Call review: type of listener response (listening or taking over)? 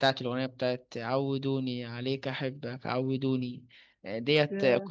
listening